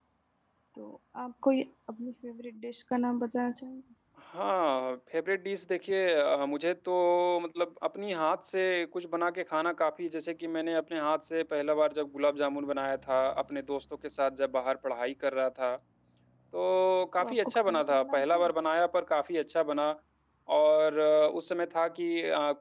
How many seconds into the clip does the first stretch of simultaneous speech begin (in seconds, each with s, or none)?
17.2 s